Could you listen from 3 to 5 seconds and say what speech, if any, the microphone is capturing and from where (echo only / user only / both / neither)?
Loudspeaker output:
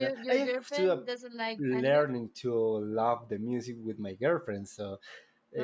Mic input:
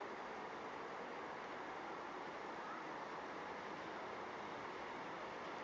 neither